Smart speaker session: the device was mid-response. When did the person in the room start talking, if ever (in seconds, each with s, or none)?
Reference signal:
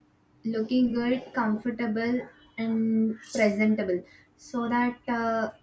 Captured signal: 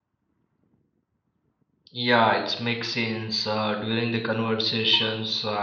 1.9 s